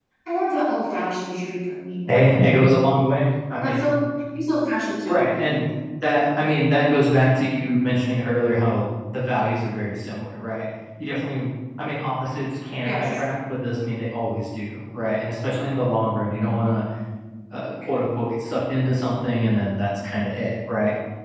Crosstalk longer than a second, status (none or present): none